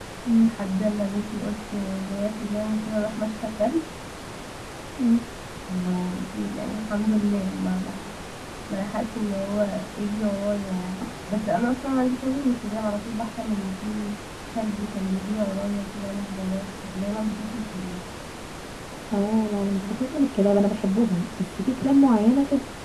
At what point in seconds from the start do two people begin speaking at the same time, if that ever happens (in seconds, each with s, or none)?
none